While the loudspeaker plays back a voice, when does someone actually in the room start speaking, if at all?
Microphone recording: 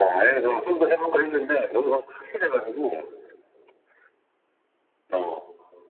none

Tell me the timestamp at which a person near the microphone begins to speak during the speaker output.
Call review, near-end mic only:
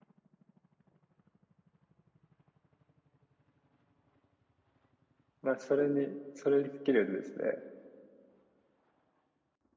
5.4 s

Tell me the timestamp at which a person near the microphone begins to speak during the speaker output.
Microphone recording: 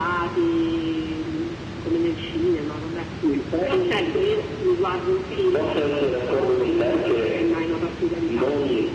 none

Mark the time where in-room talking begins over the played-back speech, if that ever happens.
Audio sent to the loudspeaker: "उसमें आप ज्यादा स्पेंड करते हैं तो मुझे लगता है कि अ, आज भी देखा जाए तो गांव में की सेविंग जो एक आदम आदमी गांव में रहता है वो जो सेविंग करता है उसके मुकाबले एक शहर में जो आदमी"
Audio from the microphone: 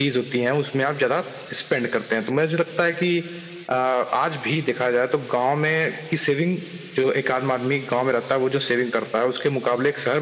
none

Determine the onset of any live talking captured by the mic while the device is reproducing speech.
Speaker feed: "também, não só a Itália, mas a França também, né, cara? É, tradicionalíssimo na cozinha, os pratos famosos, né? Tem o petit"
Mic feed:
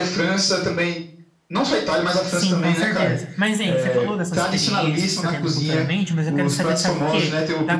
2.2 s

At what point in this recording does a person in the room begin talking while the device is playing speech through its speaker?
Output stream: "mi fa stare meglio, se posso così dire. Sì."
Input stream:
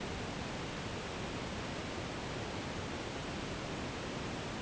none

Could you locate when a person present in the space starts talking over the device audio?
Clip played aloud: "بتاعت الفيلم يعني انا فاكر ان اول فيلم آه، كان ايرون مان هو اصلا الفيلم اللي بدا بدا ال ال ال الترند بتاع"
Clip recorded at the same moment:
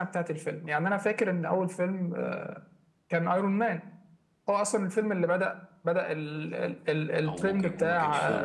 7.3 s

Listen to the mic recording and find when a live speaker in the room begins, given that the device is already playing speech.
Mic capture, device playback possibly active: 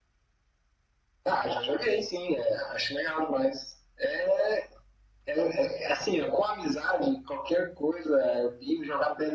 none

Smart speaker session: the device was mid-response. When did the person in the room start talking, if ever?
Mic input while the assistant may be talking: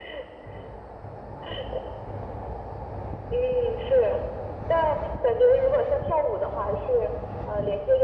none

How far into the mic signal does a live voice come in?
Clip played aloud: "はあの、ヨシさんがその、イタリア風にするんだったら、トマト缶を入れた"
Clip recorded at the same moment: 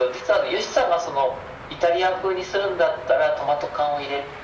none

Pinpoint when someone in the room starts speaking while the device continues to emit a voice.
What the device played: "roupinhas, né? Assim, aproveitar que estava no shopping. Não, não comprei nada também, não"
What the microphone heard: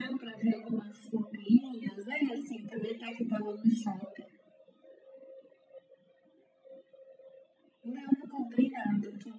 none

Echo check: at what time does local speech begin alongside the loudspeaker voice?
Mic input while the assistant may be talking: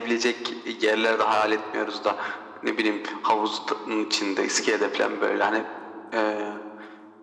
none

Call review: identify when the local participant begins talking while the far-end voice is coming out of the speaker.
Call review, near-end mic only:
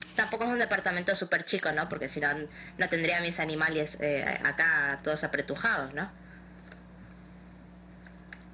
none

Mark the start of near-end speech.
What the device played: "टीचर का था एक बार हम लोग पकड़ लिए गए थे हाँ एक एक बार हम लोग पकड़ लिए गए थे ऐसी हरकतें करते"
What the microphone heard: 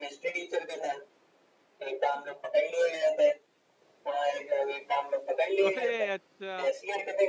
5.6 s

